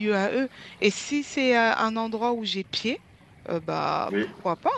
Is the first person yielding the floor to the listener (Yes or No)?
No